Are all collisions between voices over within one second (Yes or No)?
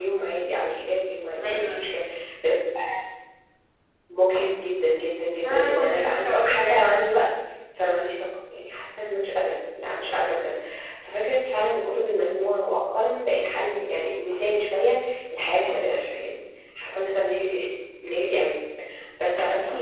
No